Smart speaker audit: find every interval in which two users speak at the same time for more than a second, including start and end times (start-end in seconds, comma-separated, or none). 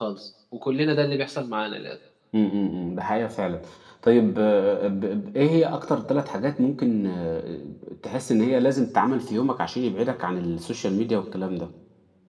none